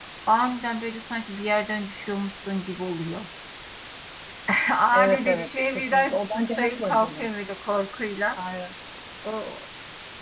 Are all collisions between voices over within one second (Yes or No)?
No